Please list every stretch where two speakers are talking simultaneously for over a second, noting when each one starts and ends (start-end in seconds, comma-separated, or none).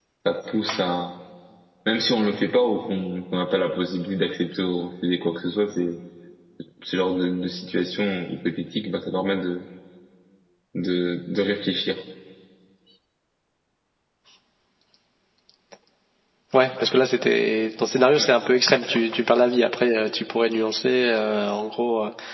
none